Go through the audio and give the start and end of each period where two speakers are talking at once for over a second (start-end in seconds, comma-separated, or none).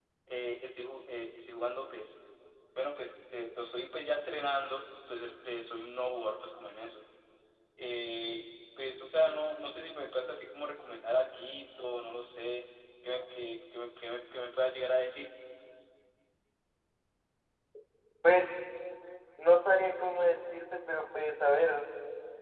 none